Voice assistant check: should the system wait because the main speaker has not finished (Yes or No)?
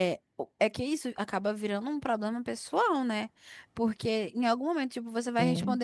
Yes